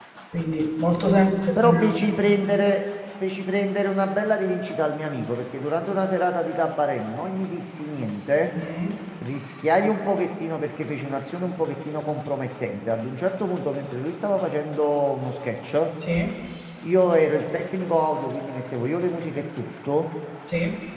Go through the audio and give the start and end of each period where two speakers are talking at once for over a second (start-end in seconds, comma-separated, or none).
none